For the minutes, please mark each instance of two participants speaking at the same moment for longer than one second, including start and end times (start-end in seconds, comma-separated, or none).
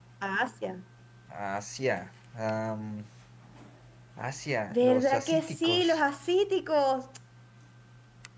4.7-6.0